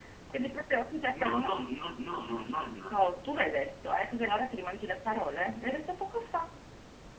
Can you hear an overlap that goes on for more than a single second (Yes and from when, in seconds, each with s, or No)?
No